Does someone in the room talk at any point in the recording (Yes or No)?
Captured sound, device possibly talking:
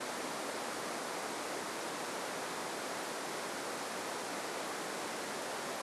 No